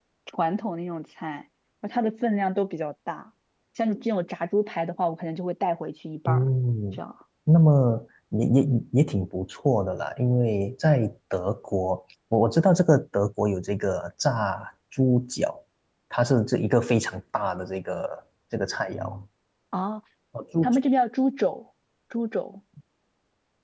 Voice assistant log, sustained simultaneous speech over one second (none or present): none